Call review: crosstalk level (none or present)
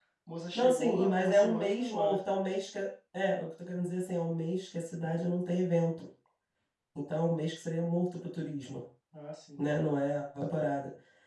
present